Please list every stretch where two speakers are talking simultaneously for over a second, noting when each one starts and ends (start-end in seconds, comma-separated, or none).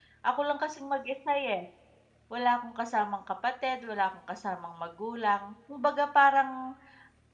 none